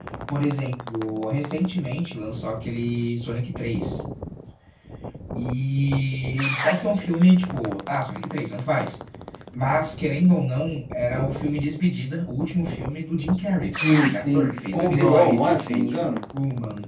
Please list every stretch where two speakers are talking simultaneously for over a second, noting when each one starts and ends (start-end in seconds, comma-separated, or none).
13.9-16.1